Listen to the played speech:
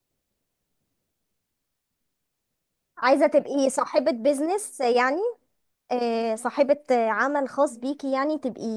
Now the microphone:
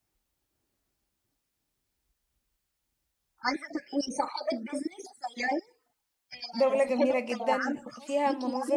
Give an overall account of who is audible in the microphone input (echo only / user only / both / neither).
both